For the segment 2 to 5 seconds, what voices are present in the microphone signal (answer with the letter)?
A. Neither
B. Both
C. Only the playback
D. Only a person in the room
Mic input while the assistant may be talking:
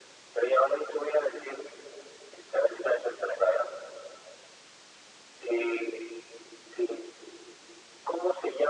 C